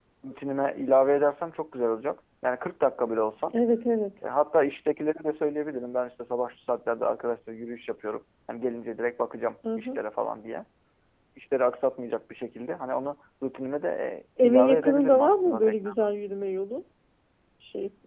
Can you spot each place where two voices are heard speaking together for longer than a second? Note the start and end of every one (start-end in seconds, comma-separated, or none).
14.4-15.9